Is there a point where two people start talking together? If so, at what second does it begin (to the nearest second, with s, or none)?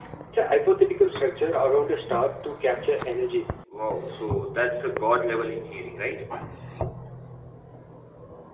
none